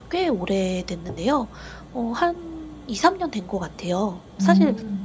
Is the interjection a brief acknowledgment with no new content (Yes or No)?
Yes